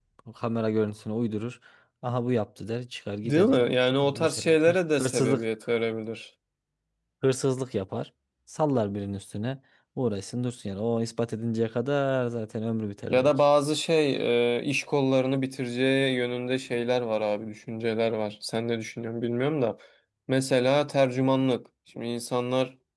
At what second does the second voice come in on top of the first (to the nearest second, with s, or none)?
3 s